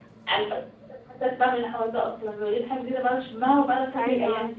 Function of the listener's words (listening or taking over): taking over